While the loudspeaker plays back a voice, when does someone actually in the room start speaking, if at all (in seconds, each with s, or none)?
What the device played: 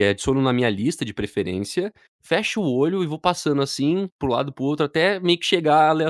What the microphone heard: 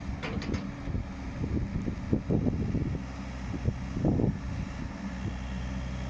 none